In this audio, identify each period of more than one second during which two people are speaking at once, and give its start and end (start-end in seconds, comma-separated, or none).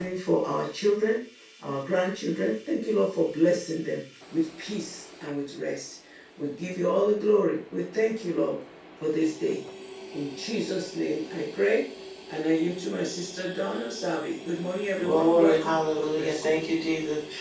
15.0-16.5